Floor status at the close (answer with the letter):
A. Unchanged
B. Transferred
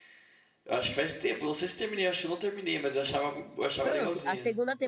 B